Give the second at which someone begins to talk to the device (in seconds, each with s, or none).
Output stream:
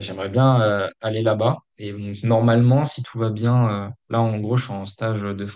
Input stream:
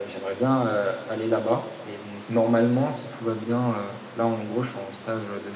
none